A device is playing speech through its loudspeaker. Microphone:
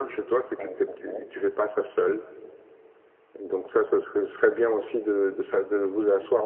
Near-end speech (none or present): present